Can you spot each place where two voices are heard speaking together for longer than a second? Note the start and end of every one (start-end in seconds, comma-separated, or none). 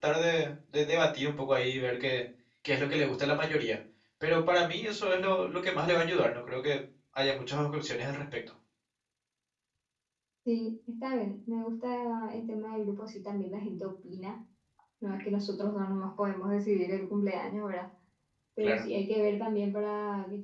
none